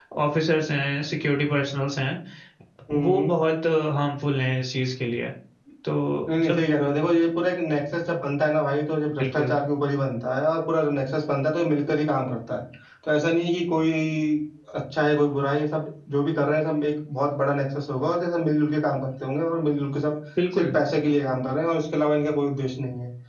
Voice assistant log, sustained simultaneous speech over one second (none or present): none